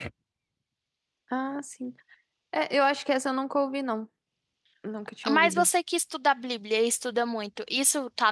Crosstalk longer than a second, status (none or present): none